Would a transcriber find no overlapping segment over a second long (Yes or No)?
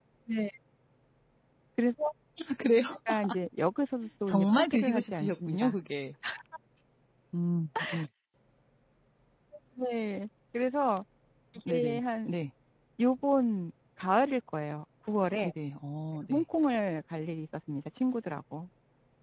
No